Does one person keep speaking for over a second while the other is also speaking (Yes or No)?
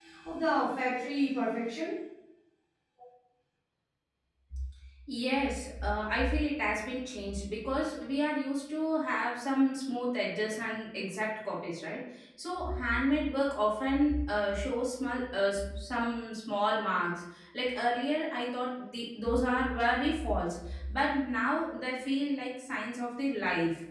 No